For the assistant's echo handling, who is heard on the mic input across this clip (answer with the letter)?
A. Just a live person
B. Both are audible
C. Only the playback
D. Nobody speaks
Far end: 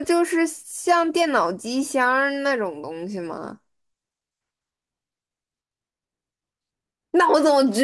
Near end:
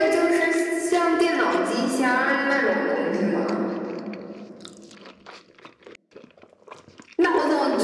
C